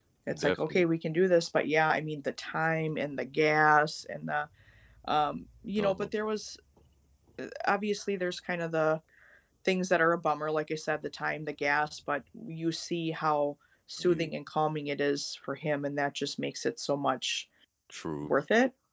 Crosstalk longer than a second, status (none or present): none